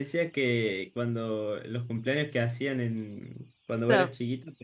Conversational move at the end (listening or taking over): listening